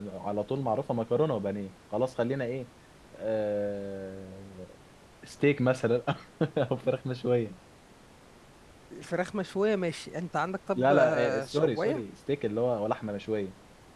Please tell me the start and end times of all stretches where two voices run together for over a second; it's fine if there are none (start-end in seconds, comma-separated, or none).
10.8-12.0